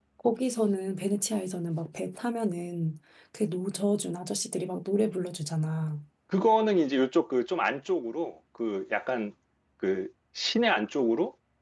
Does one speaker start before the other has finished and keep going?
No

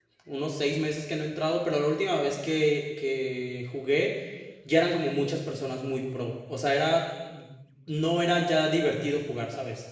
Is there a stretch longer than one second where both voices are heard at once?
No

